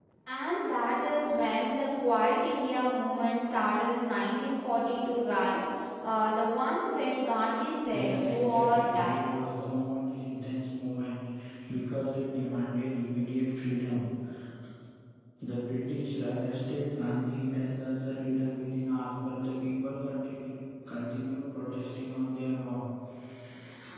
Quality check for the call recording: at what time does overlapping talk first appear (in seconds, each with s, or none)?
7.9 s